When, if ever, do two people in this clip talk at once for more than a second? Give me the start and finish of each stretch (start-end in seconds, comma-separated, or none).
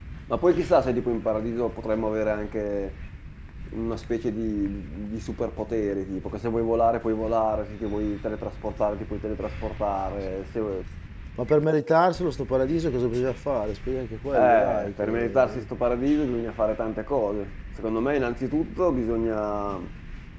14.3-15.6